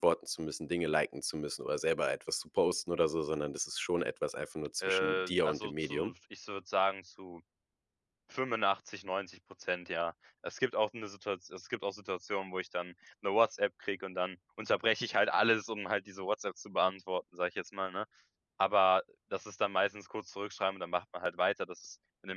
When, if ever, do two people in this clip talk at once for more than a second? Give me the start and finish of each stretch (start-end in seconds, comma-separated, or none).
4.8-6.1